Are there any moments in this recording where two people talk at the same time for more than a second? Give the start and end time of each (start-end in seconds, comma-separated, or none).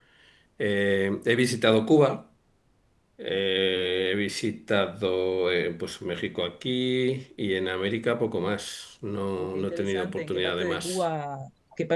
9.4-11.0